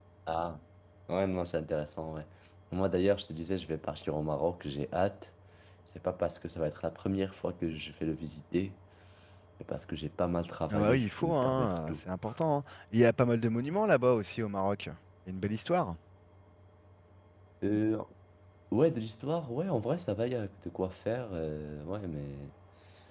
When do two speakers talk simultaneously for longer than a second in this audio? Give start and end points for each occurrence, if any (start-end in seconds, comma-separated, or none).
10.7-11.9